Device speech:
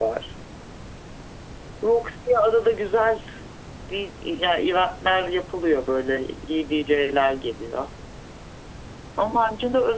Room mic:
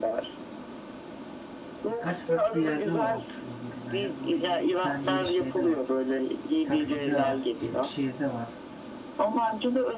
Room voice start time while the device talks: 1.8 s

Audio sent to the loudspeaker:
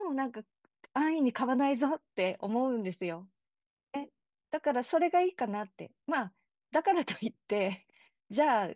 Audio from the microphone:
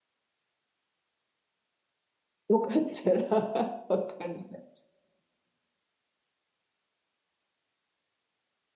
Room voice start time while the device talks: 2.5 s

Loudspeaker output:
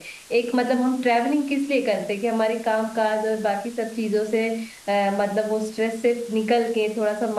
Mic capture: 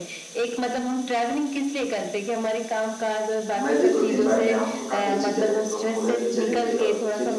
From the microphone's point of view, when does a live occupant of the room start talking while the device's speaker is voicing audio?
3.6 s

